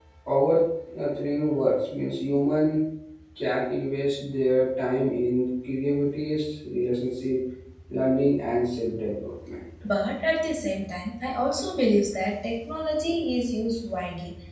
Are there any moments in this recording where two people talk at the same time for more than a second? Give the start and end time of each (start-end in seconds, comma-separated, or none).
none